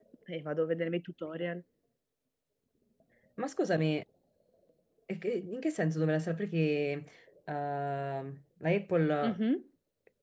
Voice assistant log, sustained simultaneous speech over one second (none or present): none